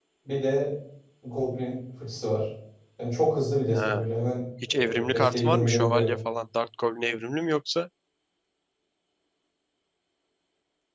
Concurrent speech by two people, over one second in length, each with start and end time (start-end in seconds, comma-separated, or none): 4.7-6.2